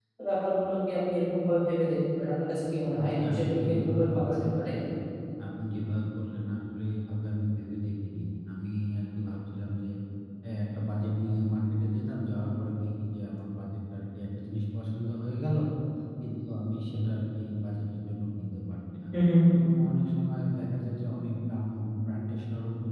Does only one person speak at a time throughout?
No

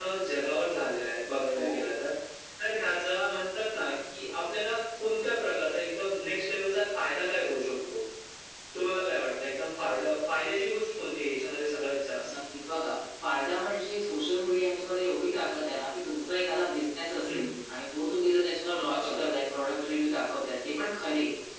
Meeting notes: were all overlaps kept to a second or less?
Yes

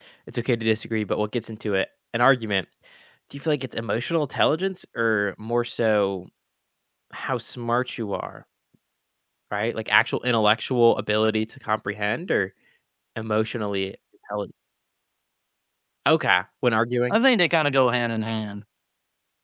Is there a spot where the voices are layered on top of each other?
No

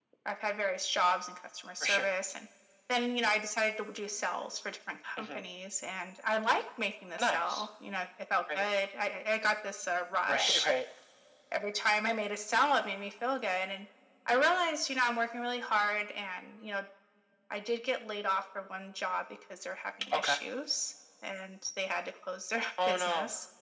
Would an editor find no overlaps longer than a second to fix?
Yes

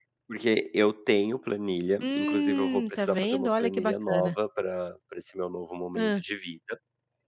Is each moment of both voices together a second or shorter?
No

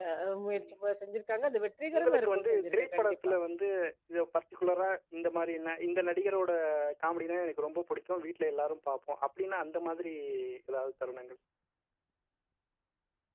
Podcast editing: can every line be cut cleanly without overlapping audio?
No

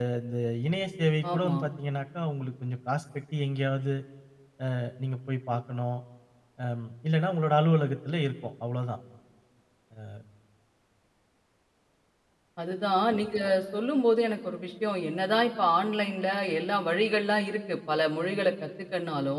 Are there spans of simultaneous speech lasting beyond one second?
No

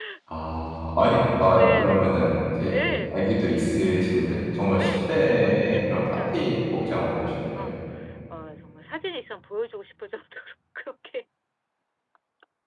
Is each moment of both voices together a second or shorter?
No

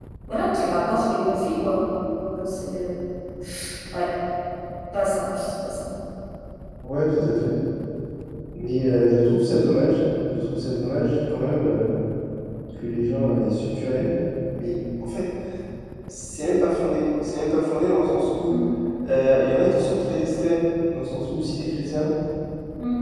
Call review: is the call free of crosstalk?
Yes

